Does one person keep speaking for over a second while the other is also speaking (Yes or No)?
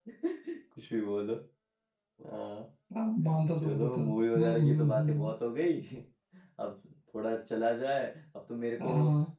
Yes